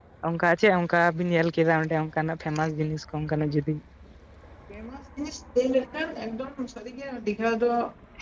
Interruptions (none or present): none